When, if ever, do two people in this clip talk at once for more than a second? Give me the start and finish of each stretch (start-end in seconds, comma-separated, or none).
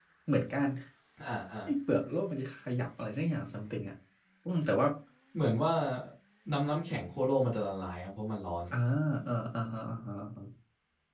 none